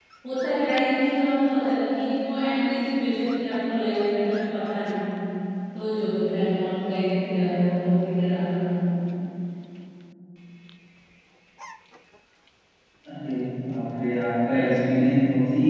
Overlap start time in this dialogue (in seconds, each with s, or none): none